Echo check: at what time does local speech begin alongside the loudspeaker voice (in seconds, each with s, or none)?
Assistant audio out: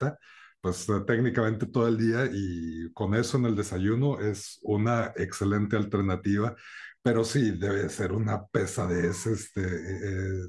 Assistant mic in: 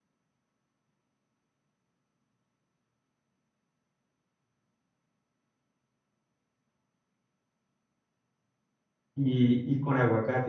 9.2 s